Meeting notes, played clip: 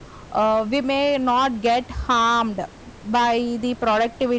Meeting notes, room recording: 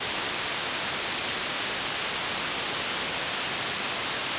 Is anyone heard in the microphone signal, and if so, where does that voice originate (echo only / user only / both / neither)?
neither